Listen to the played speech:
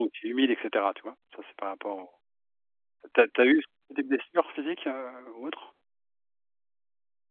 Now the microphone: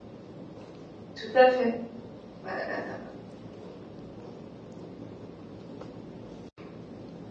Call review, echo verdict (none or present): none